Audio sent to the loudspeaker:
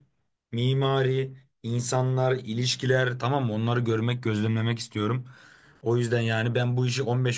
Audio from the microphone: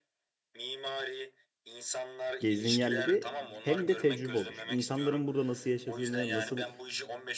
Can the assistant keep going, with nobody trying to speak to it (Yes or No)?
No